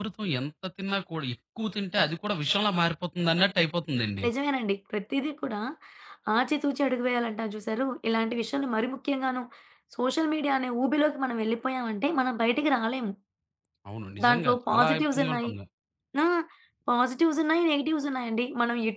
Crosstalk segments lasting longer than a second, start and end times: 14.2-15.5

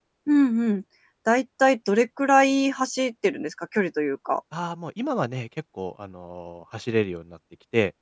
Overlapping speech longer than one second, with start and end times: none

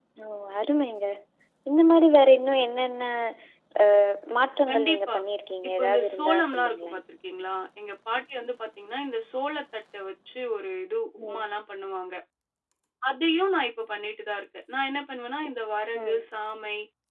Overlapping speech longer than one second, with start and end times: 5.8-7.0

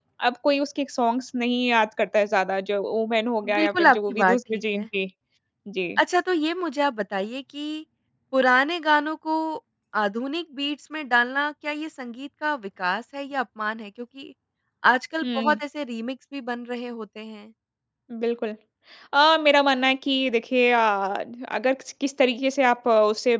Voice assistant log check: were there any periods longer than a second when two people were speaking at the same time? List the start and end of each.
3.4-4.8

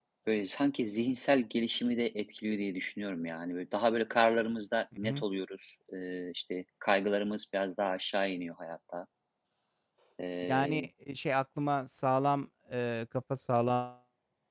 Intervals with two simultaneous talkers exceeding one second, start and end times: none

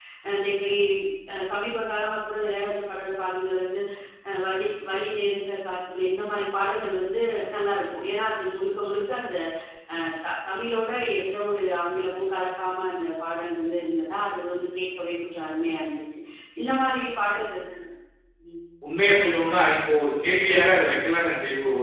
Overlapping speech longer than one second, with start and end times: none

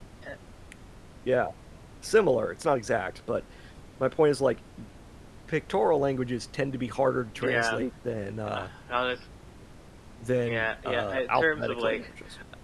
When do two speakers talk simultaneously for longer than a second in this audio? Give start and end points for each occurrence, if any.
10.5-12.1

